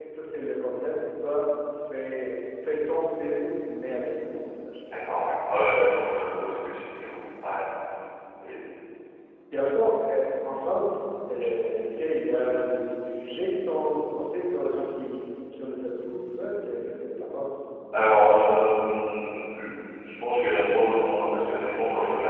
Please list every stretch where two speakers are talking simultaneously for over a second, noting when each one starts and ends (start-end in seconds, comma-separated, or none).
none